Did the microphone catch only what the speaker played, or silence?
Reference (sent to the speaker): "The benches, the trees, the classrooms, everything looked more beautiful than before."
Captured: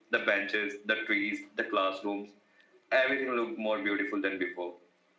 Yes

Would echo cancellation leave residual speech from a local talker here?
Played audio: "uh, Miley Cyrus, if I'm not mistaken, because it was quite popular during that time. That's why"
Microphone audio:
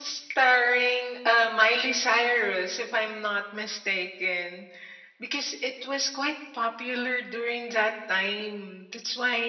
No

